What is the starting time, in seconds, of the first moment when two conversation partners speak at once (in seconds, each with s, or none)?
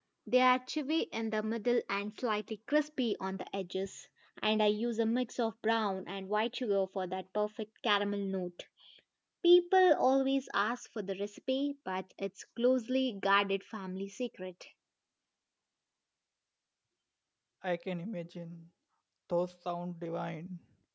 none